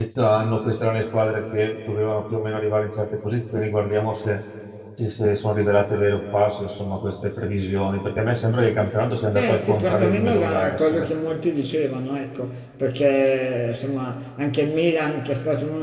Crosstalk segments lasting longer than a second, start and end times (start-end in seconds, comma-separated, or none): 9.3-11.1